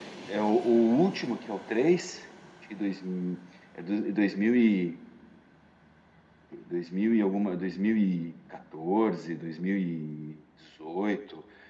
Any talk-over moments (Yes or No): No